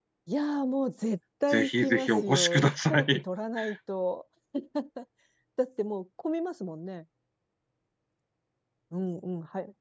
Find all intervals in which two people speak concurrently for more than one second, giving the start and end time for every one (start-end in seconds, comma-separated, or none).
1.5-3.2